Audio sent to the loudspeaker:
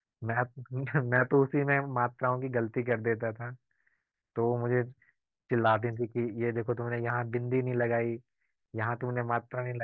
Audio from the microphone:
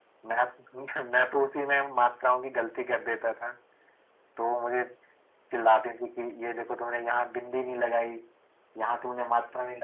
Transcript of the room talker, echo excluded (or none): none